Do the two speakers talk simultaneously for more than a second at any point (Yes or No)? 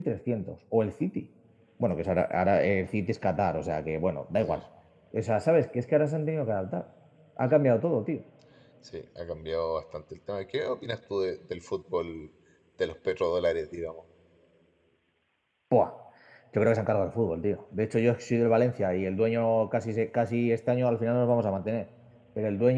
No